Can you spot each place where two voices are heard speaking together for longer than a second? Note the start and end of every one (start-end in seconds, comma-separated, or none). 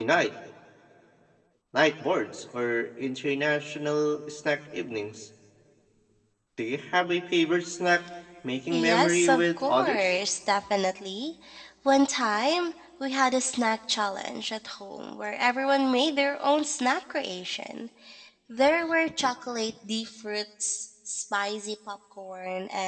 8.7-10.1